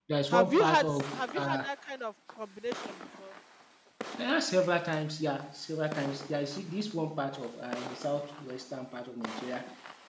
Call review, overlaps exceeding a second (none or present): present